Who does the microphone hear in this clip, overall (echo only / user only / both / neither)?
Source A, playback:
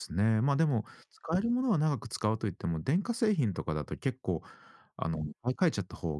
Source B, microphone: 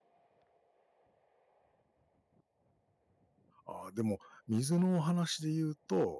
user only